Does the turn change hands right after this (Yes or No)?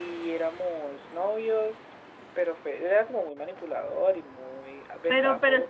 Yes